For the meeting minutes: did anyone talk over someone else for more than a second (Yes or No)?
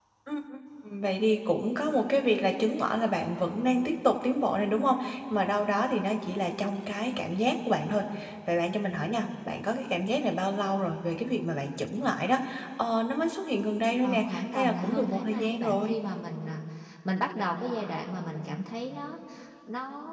Yes